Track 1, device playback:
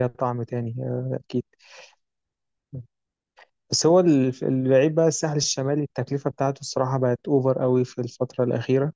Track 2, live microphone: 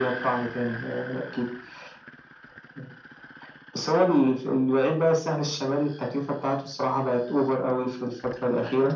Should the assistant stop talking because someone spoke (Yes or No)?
No